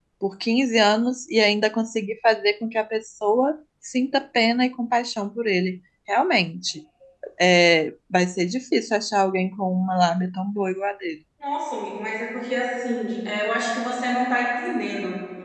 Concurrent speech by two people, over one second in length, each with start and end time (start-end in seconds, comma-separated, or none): none